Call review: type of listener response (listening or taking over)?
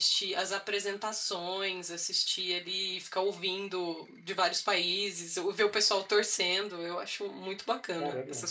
taking over